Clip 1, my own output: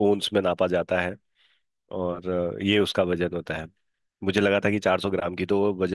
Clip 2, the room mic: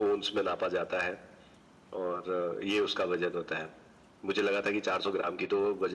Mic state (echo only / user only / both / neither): echo only